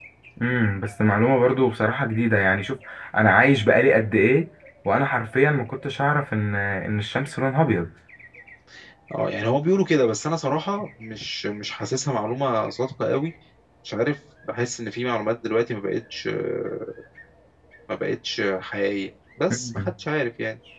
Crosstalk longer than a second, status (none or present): none